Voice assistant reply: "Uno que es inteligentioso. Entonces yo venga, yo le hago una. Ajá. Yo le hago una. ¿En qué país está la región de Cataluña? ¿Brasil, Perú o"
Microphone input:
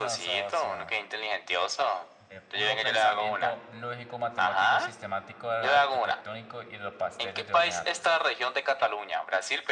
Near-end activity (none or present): present